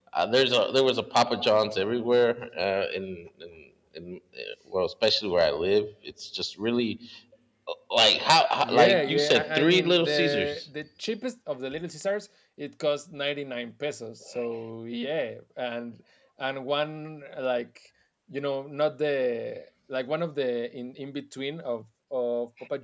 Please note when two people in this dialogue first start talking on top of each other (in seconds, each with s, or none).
8.6 s